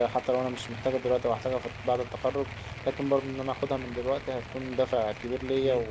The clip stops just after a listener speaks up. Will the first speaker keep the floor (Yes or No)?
No